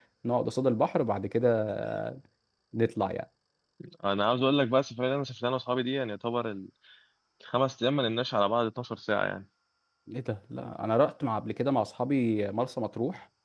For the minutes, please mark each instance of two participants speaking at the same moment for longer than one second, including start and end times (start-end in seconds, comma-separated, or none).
none